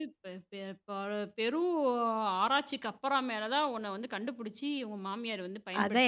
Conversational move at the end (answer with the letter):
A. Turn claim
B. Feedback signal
A